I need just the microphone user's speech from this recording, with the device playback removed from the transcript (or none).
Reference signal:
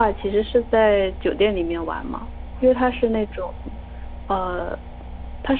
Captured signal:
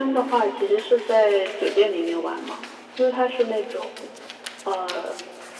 none